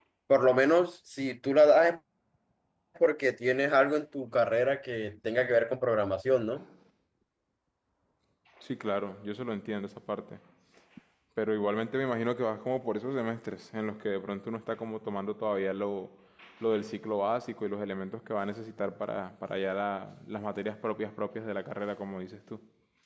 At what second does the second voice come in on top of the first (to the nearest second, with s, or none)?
none